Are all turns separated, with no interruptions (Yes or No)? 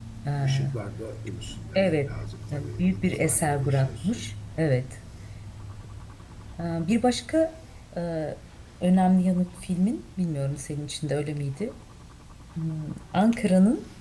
No